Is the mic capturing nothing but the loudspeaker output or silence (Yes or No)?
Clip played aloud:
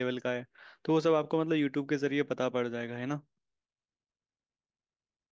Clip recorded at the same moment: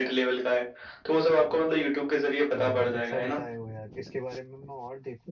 No